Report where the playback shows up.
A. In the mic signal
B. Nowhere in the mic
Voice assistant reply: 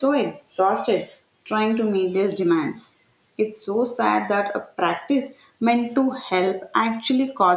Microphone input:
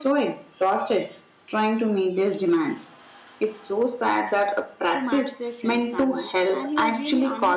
A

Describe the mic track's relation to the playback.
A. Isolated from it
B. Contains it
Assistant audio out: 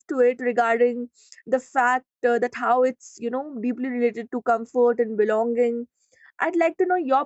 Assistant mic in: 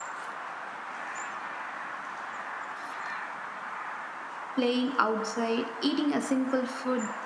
A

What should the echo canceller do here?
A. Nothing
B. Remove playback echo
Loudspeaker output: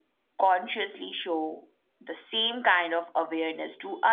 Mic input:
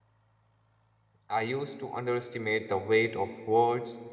A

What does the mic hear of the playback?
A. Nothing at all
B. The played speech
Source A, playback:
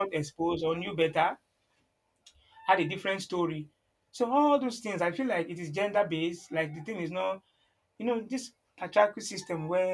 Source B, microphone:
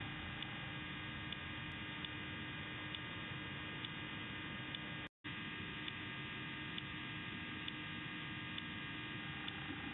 A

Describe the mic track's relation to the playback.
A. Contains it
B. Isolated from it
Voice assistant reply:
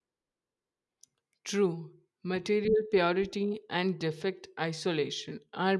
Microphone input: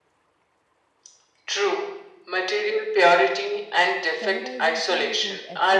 A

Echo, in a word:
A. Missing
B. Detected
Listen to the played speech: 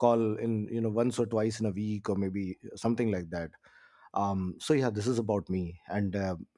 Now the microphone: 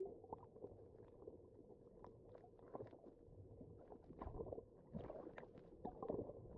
A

